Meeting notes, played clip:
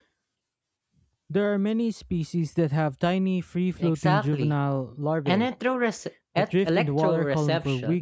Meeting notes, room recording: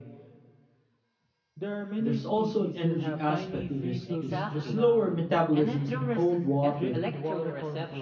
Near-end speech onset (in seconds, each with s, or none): 2.0 s